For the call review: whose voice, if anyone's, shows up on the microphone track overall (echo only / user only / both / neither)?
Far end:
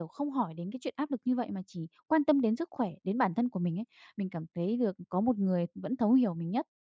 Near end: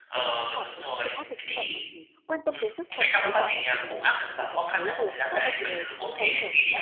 both